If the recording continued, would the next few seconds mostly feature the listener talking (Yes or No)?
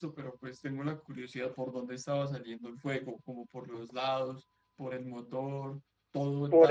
Yes